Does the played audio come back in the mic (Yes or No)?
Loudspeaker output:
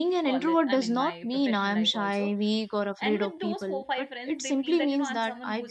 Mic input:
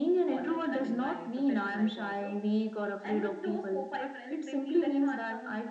Yes